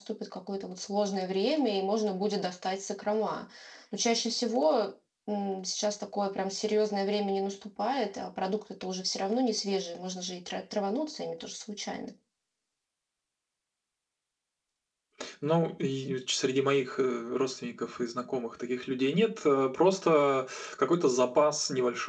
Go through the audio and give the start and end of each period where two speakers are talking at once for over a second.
none

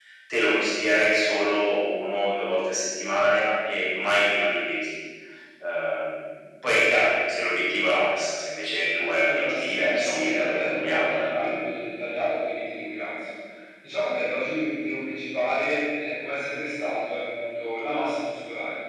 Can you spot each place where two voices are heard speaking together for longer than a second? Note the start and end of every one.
9.2-11.3

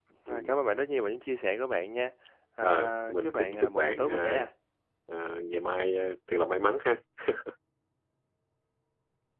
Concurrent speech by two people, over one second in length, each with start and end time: 2.6-4.4

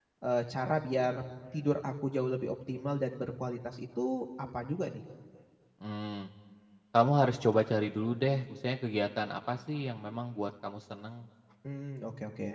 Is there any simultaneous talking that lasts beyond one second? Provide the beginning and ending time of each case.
none

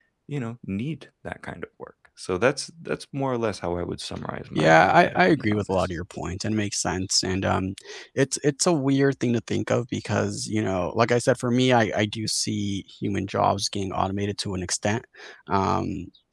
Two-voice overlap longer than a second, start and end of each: 4.5-5.9

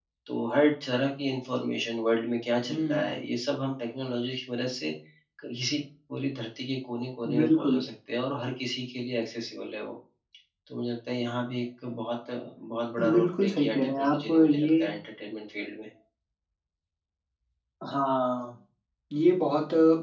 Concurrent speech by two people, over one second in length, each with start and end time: 13.2-14.7

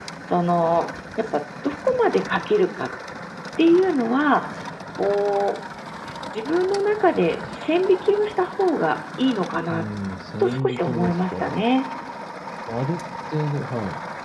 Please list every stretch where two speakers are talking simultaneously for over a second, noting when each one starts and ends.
10.4-11.6

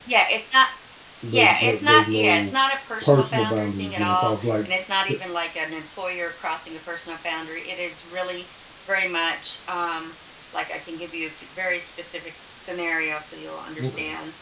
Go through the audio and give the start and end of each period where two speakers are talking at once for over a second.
1.3-2.5, 3.0-4.5

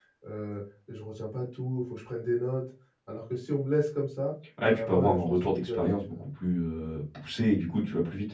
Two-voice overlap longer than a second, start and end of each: 4.6-6.2

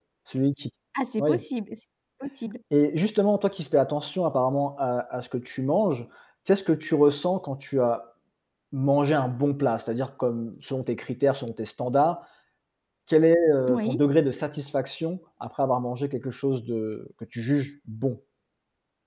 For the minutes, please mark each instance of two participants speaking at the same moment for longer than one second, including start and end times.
none

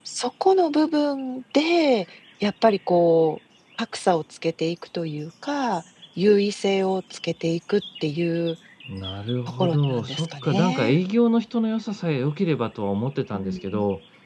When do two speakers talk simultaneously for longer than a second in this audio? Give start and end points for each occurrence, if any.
9.6-11.0

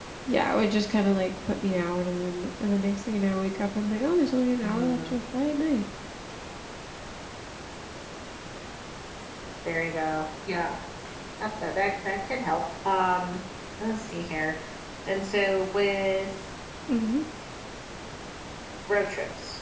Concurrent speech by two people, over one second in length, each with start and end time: none

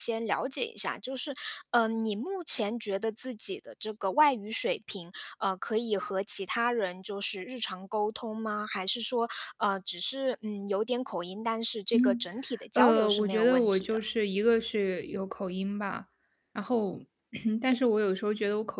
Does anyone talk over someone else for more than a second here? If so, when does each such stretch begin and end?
12.8-14.0

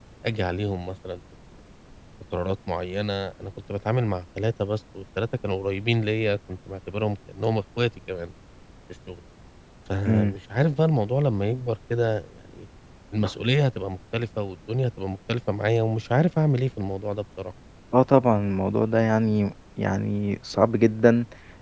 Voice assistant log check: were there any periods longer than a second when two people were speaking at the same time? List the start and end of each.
none

